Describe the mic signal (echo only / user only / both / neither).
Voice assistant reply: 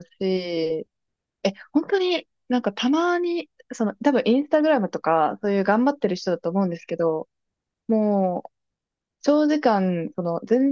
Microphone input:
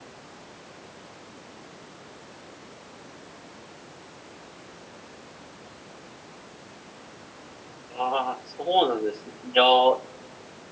user only